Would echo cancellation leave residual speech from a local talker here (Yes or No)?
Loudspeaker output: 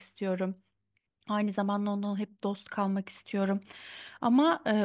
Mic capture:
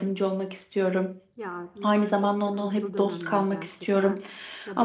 Yes